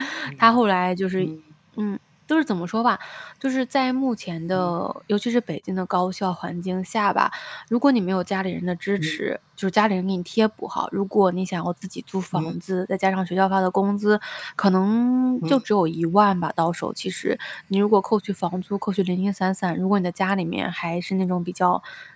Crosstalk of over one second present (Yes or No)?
No